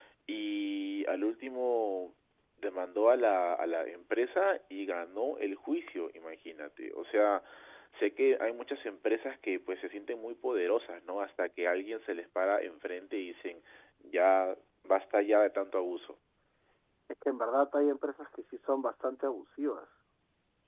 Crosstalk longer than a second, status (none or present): none